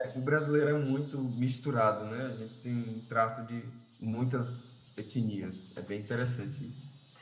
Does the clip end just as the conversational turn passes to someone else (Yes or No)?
Yes